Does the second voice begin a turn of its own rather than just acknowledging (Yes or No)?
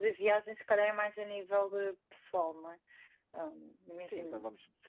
Yes